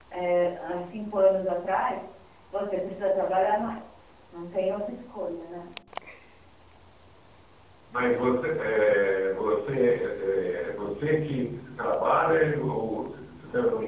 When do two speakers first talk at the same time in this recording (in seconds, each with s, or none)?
none